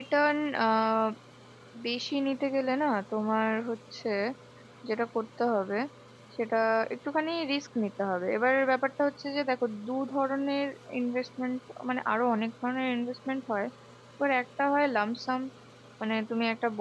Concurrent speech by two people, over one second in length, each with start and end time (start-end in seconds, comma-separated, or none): none